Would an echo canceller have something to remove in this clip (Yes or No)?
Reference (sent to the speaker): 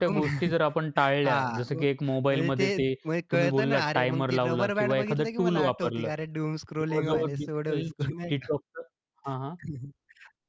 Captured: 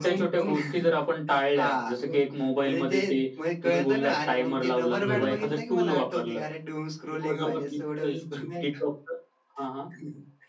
Yes